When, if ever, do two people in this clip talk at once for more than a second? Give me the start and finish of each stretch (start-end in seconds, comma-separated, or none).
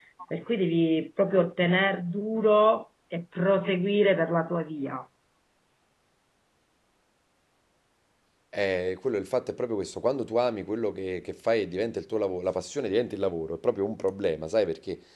none